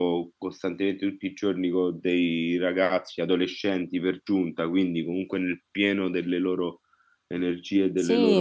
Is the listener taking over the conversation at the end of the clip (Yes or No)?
Yes